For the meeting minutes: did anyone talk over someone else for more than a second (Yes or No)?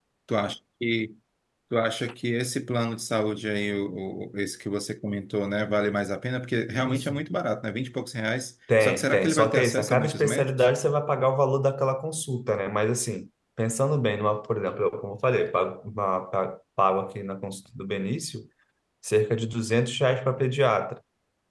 Yes